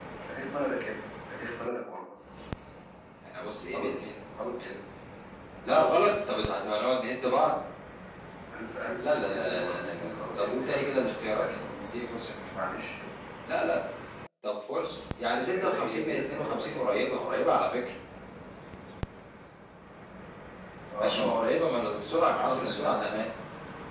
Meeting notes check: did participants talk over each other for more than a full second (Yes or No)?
Yes